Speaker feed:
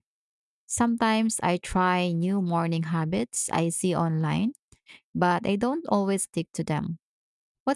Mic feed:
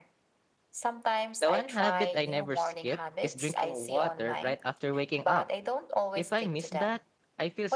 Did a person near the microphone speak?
Yes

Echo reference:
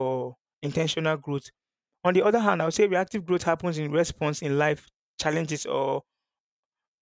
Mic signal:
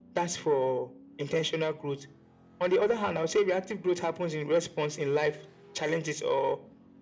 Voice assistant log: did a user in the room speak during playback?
No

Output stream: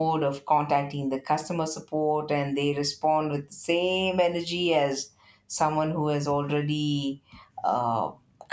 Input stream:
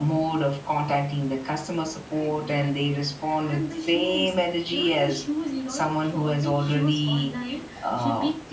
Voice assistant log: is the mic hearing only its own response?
No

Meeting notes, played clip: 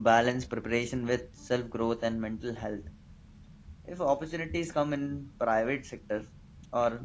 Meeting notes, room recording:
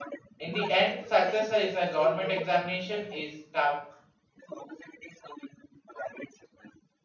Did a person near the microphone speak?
Yes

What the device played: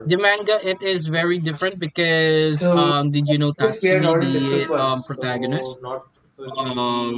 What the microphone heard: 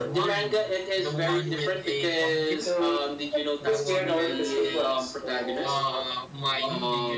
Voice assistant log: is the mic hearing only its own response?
No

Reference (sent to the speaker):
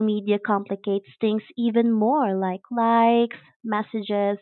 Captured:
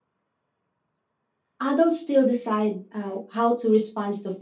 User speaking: Yes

